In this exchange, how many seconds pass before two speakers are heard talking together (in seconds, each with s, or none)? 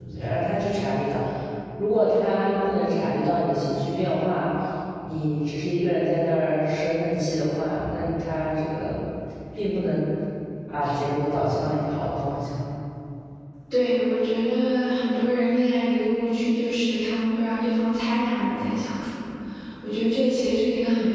none